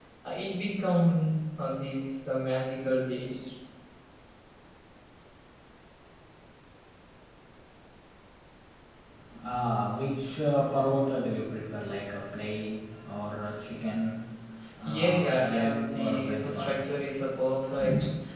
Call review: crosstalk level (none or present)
present